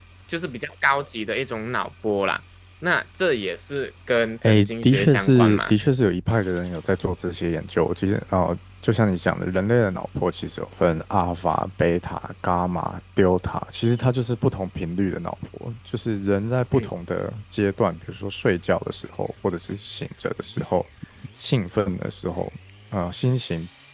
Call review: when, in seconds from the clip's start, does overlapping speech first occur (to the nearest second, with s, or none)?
4 s